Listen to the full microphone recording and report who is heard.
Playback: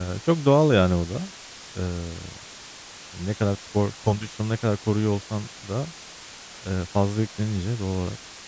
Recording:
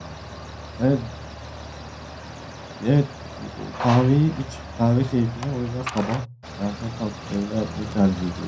user only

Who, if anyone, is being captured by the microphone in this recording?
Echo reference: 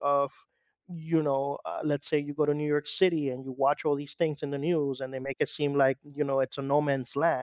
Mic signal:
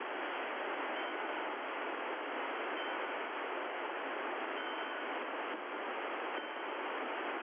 neither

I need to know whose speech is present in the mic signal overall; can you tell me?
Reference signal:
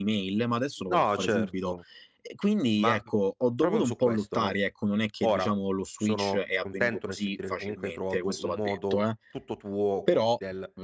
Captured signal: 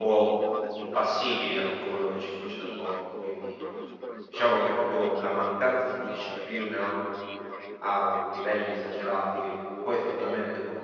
both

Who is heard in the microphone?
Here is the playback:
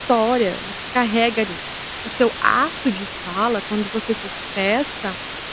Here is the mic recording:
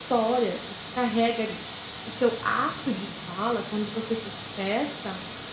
echo only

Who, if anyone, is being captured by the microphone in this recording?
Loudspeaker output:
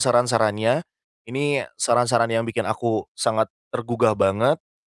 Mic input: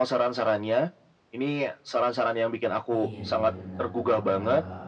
both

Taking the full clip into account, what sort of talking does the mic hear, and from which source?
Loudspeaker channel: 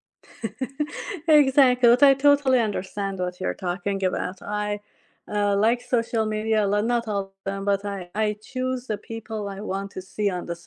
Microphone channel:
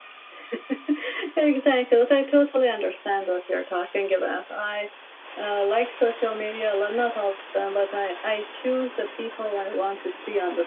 echo only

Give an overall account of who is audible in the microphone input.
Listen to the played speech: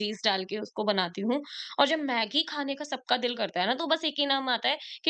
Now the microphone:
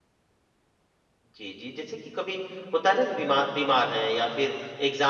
user only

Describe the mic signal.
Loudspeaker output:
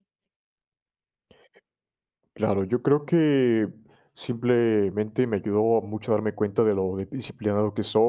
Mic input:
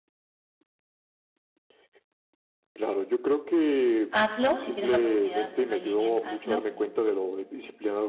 both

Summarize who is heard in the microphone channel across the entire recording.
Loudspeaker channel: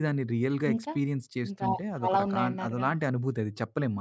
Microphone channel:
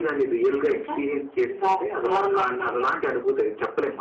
echo only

